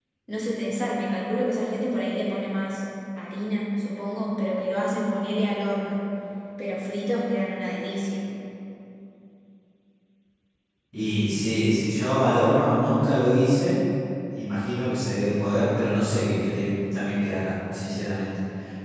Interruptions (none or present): none